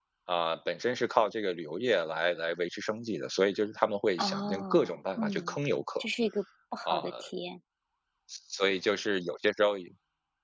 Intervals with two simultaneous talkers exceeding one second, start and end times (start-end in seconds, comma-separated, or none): 4.2-5.5